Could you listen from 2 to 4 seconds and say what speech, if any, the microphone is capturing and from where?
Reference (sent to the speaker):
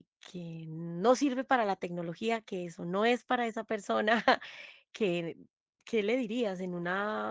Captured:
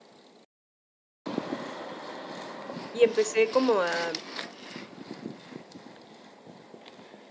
user only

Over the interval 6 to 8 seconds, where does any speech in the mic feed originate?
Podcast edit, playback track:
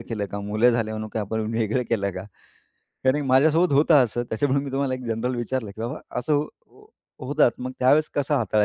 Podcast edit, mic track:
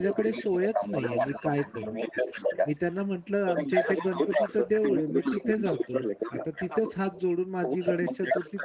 both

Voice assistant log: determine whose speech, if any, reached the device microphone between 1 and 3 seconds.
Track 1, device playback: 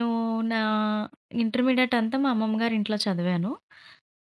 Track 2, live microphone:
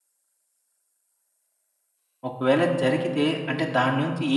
user only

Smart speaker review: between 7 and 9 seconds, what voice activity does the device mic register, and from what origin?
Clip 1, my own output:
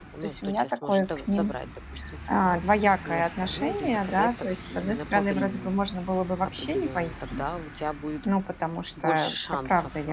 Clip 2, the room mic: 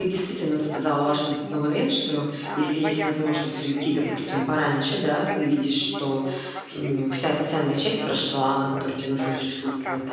both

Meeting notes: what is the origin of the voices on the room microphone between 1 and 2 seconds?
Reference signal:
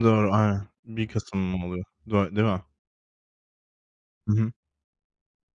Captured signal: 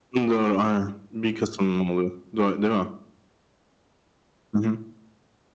echo only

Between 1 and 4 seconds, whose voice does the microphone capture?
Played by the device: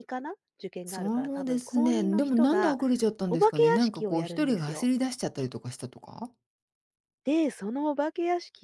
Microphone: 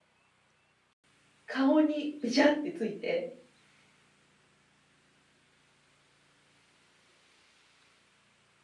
user only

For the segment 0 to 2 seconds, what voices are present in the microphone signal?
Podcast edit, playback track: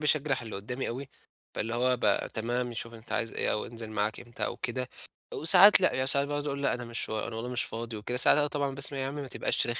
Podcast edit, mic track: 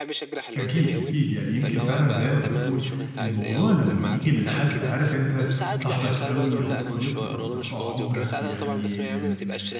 both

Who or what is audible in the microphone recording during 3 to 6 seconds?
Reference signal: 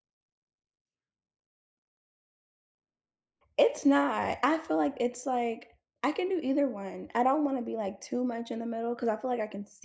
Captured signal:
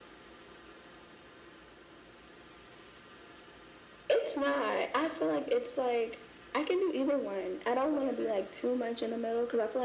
echo only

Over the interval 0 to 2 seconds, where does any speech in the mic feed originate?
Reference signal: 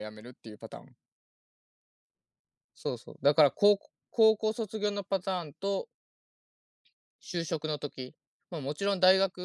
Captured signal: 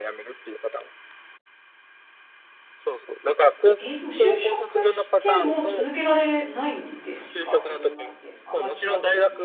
echo only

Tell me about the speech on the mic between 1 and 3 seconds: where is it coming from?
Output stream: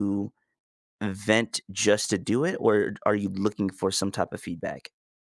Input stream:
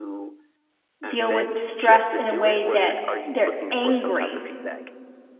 both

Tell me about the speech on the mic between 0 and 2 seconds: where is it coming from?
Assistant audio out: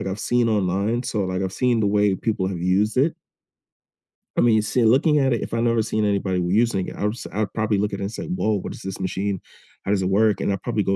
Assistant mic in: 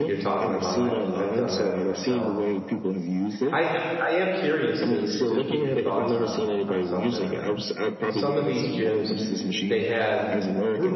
both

